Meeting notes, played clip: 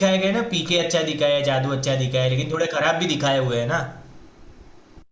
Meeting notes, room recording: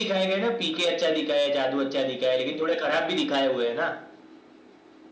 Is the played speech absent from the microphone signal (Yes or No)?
No